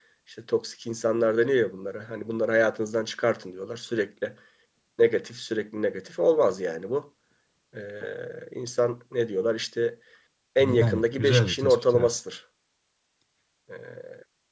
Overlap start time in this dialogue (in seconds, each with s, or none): 10.6 s